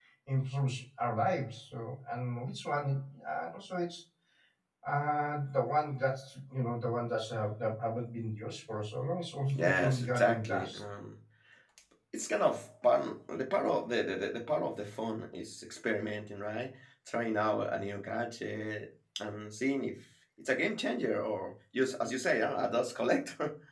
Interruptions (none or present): present